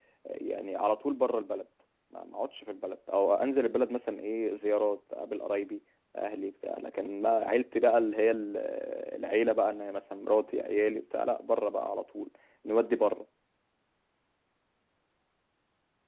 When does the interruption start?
none

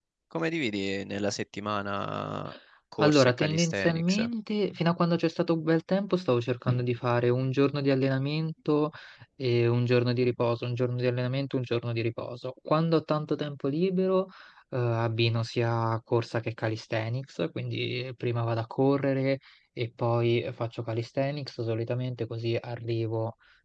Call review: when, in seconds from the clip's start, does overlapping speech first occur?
3.0 s

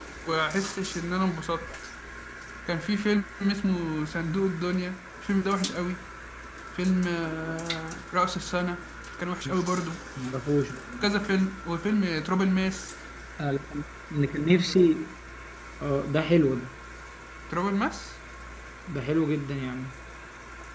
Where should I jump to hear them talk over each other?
none

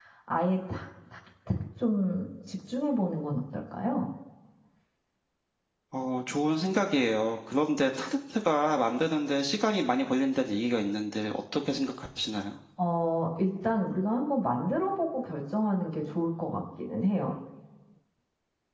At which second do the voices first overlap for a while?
none

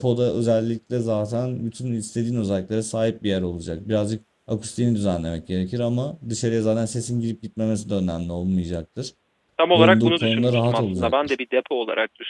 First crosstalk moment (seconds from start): 9.7 s

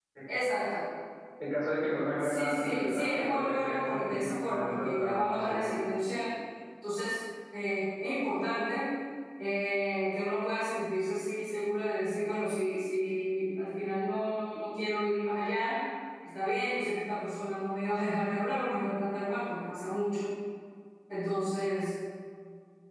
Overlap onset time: 2.2 s

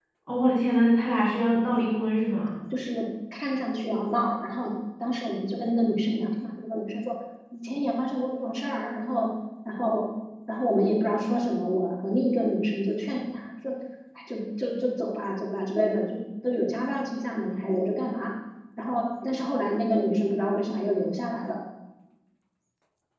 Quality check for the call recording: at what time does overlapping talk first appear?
none

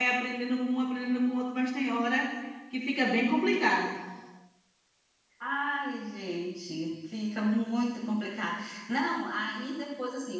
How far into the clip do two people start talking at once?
none

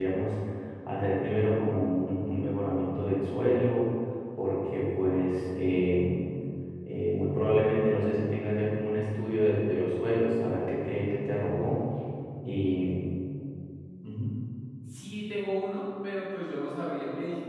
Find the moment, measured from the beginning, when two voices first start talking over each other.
none

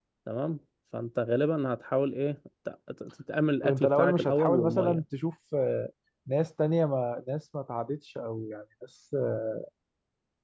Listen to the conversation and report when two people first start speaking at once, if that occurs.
3.6 s

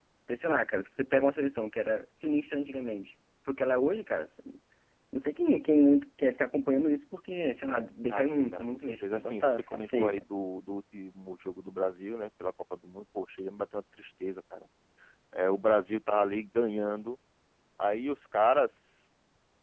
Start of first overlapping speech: 8.1 s

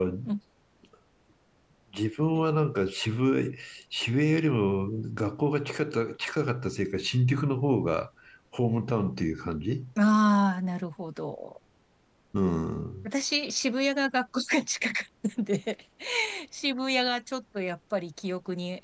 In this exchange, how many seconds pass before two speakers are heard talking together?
none

